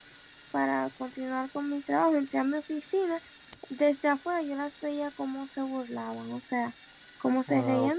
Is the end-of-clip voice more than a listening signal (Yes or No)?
Yes